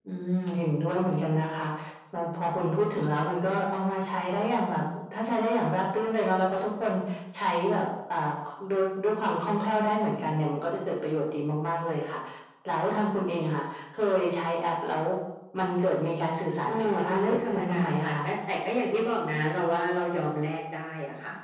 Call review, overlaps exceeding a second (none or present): present